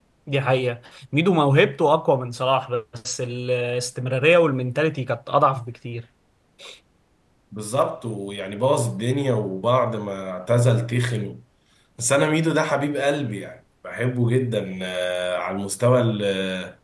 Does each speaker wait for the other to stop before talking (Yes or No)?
Yes